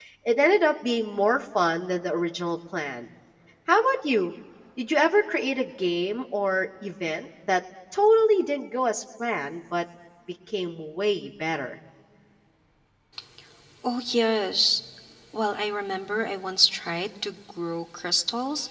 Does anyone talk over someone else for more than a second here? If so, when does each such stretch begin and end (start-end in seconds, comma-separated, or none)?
none